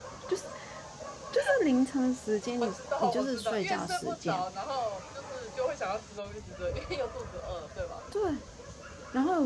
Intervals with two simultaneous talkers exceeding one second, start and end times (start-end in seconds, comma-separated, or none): 2.6-4.4